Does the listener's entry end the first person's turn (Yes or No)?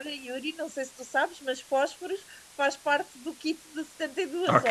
Yes